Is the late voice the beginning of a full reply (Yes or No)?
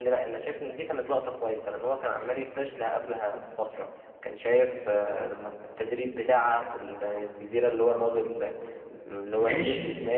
Yes